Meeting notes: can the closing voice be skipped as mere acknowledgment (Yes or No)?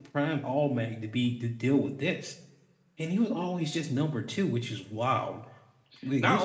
No